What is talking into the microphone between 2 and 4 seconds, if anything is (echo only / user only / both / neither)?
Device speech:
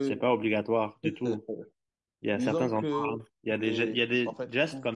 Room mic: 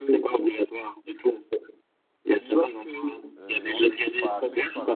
both